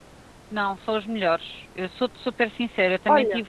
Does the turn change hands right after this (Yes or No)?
No